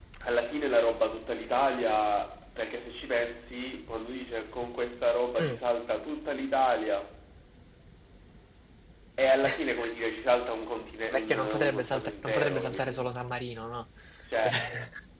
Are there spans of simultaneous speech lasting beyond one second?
Yes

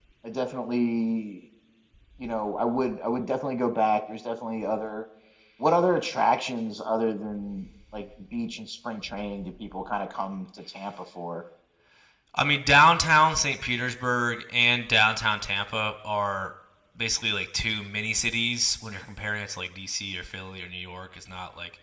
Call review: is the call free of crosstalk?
Yes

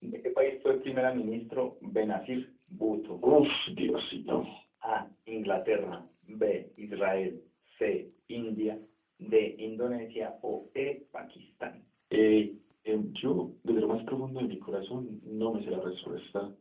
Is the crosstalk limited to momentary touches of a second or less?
Yes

